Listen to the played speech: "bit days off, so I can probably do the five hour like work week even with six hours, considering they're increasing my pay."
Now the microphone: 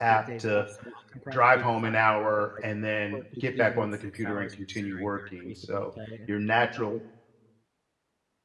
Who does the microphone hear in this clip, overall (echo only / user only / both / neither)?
both